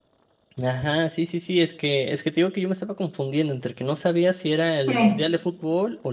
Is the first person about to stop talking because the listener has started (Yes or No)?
No